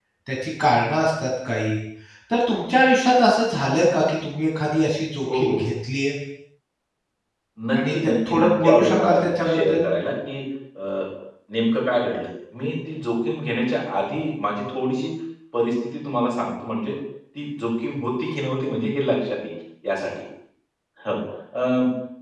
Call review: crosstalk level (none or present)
present